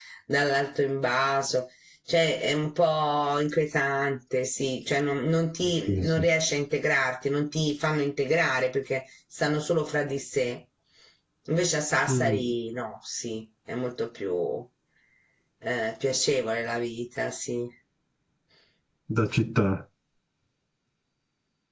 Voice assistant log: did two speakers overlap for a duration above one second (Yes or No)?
No